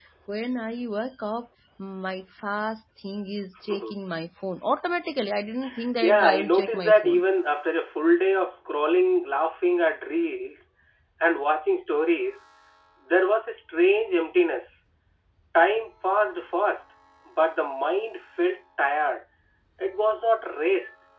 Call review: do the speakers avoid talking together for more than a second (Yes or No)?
No